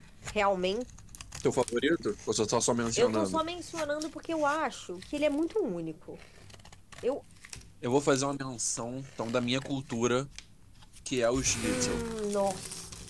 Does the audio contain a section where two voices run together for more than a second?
No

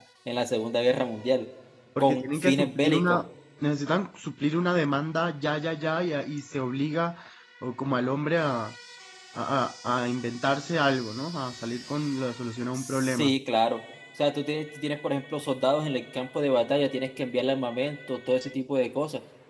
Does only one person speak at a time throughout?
No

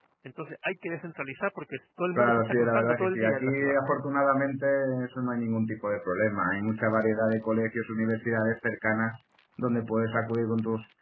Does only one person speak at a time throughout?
No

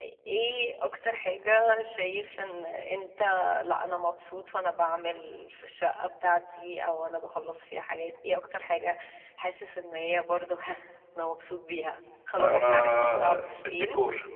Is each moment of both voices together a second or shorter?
No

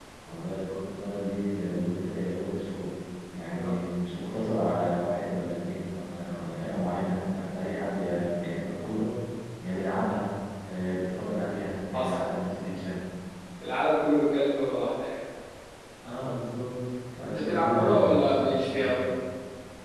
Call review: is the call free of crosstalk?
No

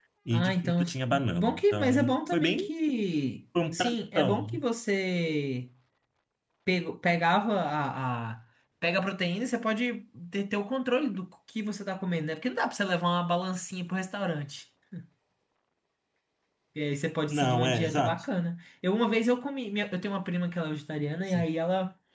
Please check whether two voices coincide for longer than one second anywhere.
Yes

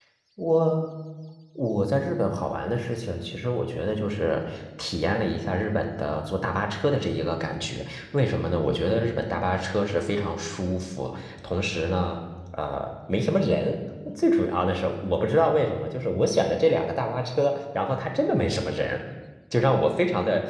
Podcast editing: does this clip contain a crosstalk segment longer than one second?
No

